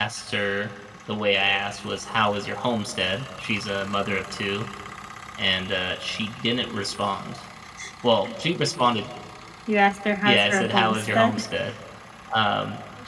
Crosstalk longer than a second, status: present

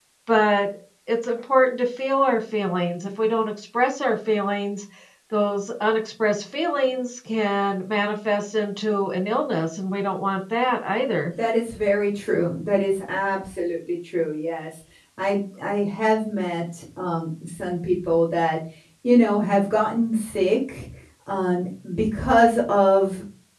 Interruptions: none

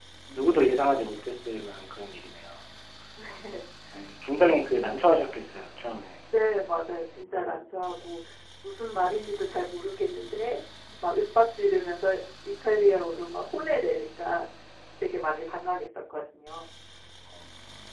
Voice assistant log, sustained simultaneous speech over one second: none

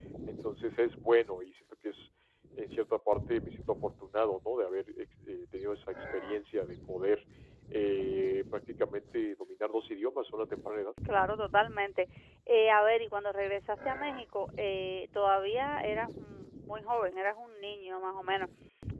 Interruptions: none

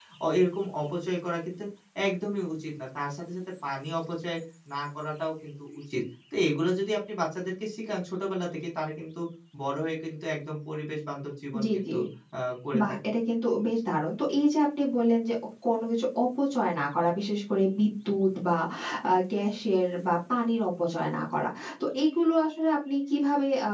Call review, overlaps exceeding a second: none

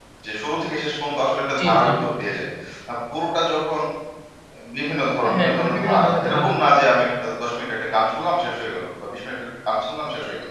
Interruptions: present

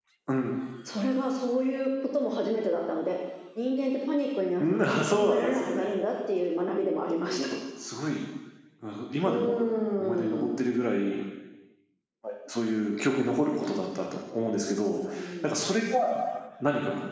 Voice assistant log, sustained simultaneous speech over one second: present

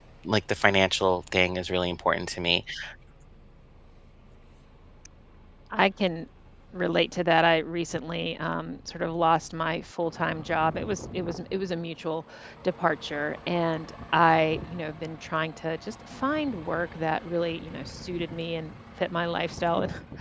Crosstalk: none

